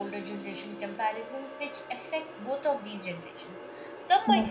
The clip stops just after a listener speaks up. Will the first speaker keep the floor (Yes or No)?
Yes